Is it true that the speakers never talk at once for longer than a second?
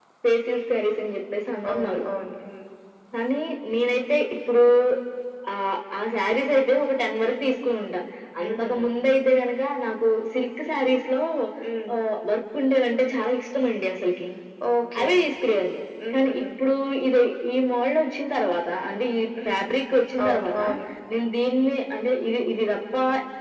Yes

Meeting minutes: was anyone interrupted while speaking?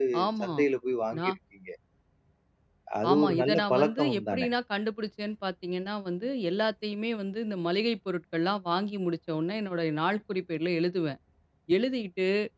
Yes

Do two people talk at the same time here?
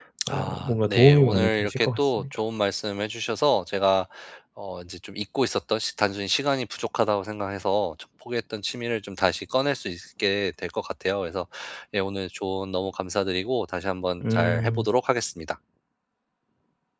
Yes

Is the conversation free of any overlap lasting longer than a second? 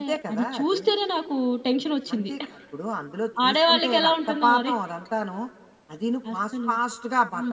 No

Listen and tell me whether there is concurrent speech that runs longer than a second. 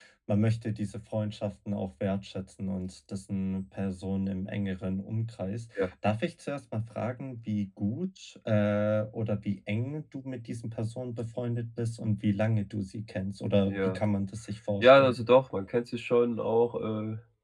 No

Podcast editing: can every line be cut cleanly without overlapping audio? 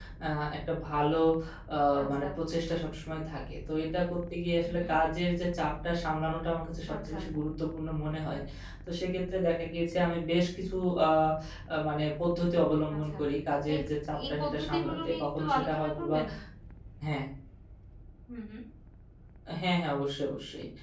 No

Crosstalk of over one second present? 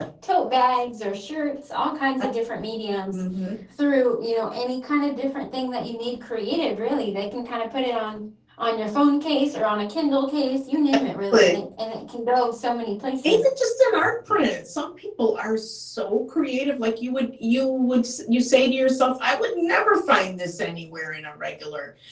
No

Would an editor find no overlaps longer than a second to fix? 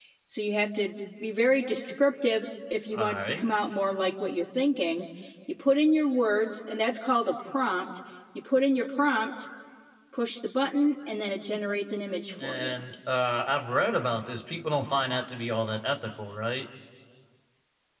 Yes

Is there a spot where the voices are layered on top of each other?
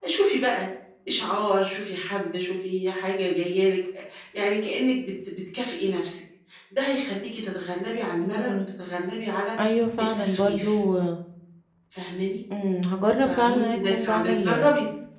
Yes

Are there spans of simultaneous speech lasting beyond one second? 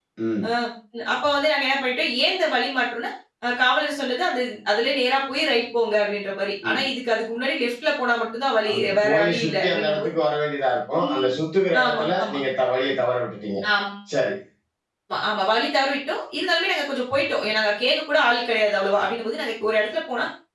Yes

